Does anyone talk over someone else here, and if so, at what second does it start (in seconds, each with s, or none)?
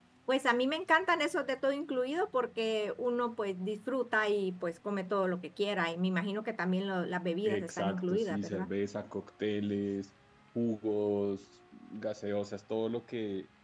7.4 s